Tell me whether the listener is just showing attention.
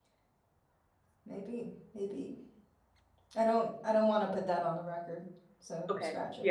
No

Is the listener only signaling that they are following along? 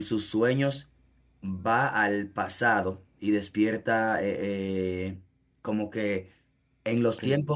Yes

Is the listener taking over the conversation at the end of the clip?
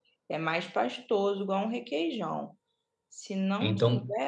No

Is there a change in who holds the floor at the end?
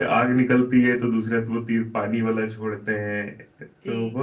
No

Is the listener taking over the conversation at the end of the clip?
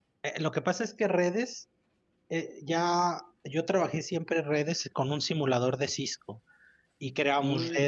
No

